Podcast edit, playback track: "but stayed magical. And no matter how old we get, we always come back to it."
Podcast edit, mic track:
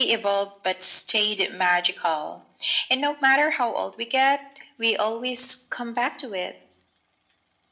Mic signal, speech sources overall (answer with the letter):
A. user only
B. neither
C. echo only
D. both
C